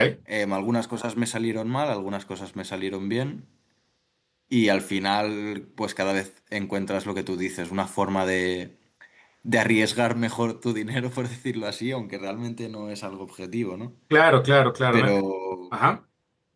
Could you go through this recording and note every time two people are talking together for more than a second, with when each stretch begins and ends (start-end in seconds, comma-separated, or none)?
none